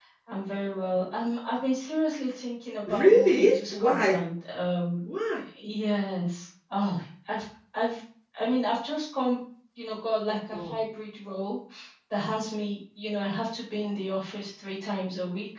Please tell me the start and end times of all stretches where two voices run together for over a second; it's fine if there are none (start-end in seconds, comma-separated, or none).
2.9-4.1